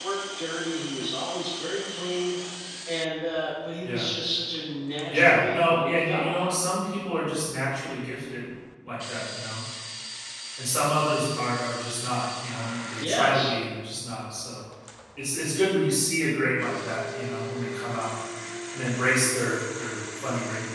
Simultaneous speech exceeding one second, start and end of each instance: 5.1-6.5

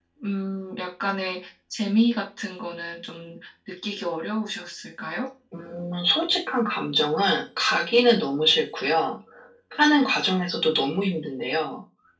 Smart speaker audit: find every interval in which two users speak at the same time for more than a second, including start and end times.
none

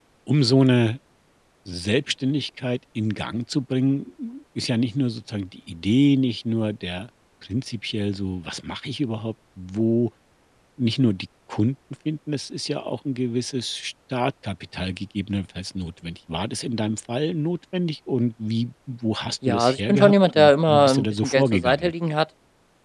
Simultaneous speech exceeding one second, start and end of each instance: 19.5-21.9

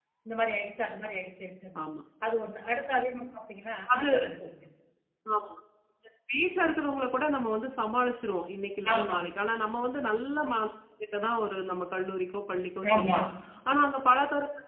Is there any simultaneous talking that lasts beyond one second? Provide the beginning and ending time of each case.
none

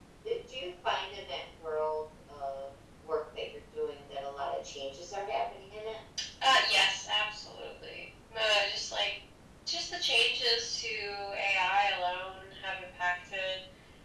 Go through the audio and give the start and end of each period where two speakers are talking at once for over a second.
none

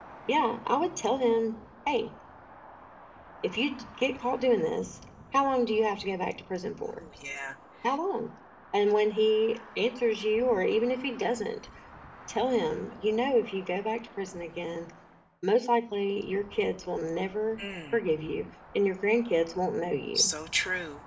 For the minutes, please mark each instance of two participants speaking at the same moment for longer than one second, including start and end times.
none

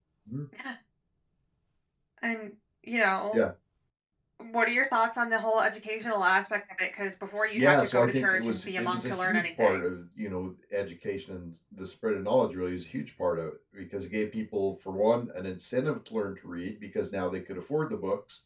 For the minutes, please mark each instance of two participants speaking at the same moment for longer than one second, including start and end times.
7.5-9.8

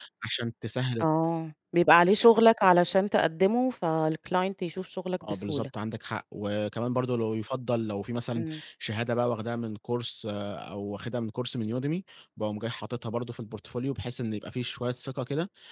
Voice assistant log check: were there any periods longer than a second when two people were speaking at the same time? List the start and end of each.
none

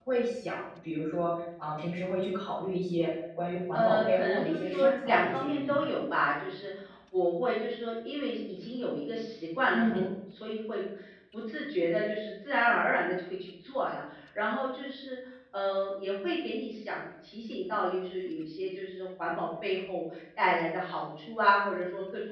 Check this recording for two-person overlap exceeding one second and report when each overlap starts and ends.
3.7-5.9

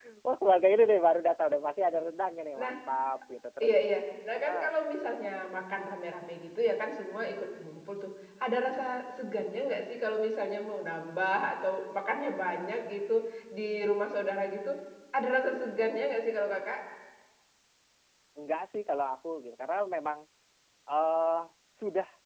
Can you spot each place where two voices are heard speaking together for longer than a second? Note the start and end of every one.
none

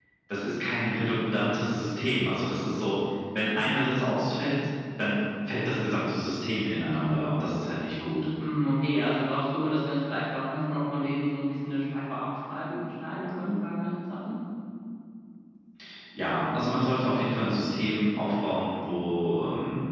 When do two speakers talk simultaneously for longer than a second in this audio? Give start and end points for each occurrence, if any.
none

